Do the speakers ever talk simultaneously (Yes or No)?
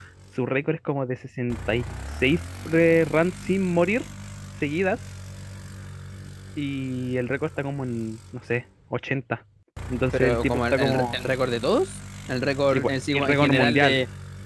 Yes